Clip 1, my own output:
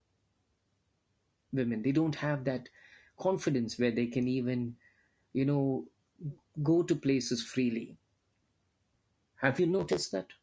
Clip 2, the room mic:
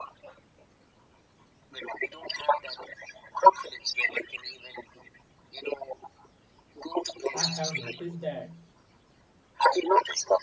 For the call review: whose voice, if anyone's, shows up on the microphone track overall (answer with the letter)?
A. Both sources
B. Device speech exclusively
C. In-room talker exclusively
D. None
A